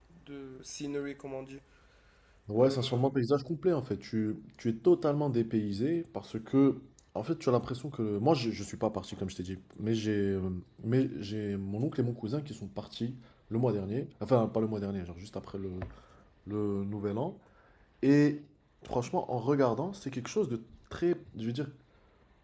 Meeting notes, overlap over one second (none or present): none